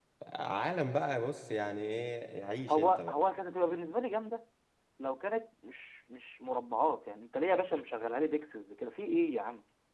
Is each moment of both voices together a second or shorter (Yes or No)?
Yes